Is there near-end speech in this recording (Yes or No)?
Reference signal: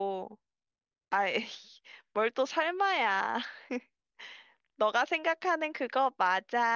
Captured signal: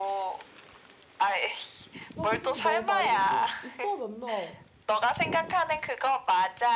Yes